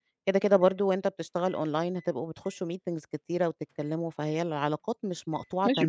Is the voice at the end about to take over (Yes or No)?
Yes